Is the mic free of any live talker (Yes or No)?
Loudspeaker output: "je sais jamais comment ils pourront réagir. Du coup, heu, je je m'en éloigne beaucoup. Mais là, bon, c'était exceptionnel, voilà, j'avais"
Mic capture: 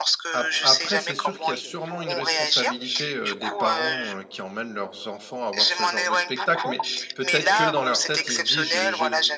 No